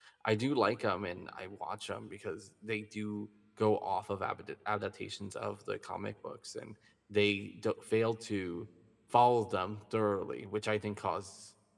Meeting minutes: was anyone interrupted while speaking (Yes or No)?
No